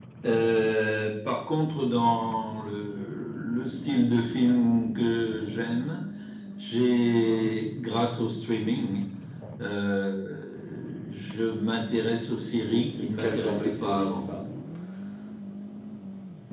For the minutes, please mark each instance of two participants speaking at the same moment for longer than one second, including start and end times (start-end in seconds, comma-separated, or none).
12.7-14.2